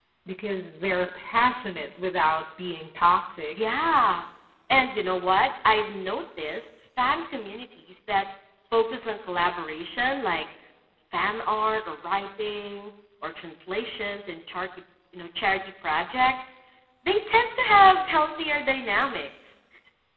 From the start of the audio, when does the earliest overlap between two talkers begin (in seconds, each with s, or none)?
none